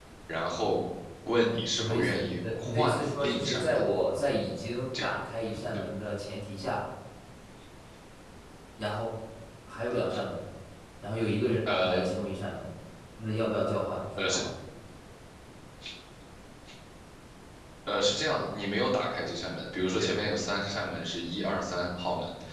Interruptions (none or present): present